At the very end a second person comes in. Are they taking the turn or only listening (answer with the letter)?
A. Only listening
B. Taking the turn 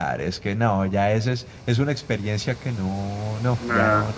B